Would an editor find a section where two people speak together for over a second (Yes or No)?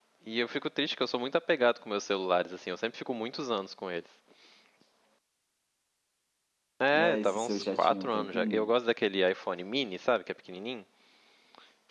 Yes